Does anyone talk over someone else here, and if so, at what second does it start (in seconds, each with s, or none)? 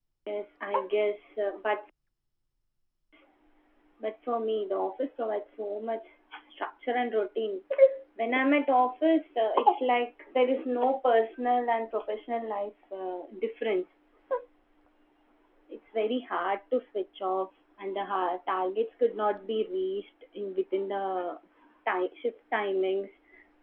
none